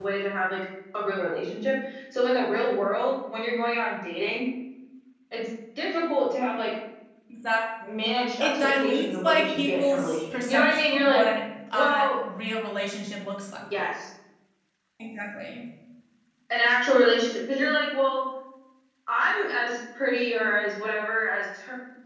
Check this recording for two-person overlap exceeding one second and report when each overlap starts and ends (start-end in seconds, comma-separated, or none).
8.4-11.2